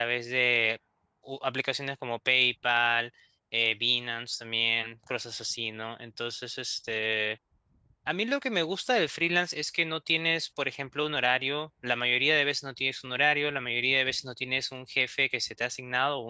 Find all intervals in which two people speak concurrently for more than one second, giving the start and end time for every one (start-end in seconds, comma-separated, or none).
none